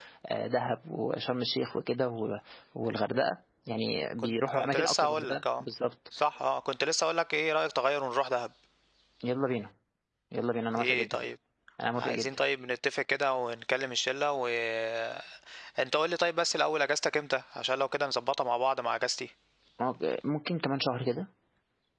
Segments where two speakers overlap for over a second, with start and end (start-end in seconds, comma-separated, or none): 4.2-5.6